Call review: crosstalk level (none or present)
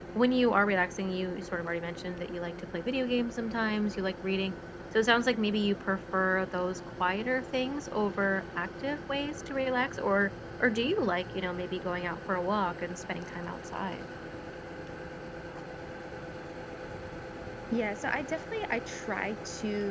none